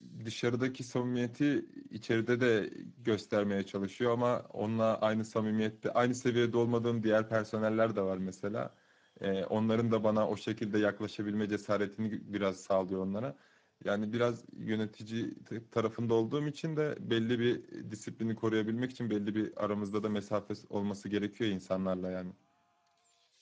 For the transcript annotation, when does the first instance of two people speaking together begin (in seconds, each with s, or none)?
none